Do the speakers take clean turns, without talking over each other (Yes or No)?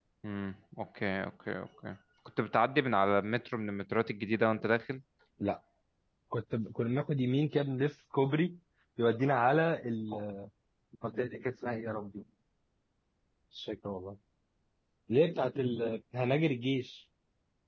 Yes